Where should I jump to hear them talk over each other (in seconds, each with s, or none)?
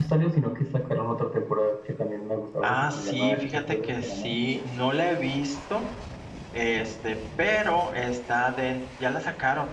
2.6 s